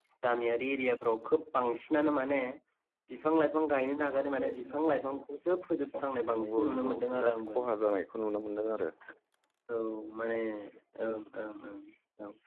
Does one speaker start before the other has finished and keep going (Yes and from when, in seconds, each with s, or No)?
Yes, from 6.3 s